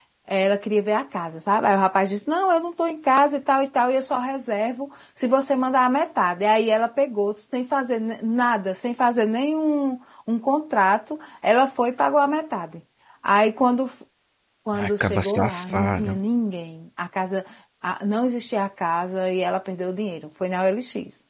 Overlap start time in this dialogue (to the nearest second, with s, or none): 15 s